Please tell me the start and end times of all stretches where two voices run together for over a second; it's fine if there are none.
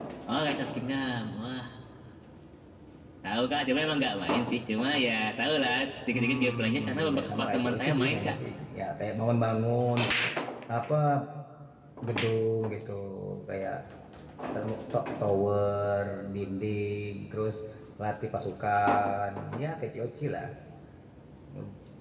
6.1-8.3

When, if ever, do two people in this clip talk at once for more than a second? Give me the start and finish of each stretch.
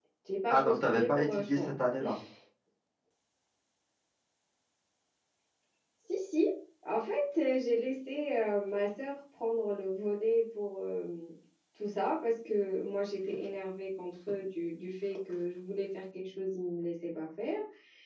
0.5-1.7

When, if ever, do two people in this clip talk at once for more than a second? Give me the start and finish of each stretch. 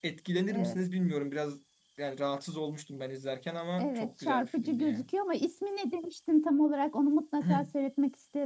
3.8-5.0

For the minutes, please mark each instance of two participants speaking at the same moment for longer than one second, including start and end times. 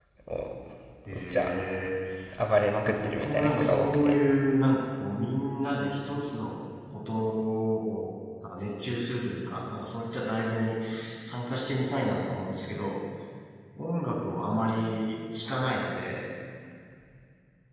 2.8-4.1

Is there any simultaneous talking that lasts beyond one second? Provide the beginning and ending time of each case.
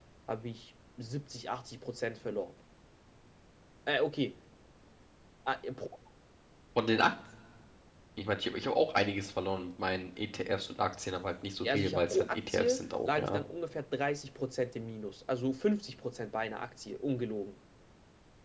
11.7-13.4

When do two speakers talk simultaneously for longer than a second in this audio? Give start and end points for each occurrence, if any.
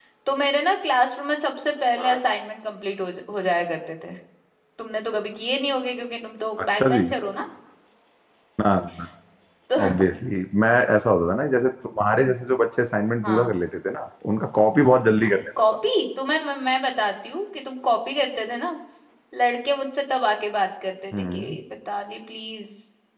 none

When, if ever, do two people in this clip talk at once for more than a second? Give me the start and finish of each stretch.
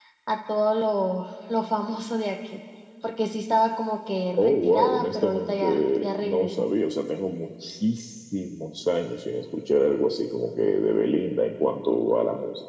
4.4-6.7

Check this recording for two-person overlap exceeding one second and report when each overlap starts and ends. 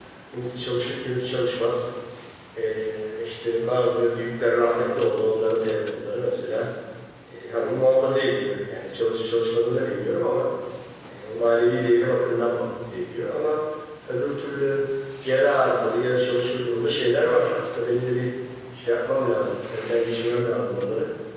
none

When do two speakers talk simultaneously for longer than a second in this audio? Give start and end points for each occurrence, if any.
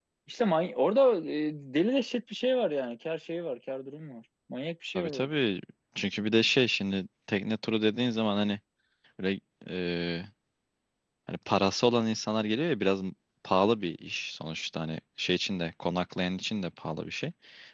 none

